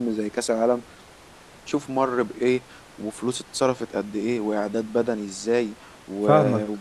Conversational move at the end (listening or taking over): listening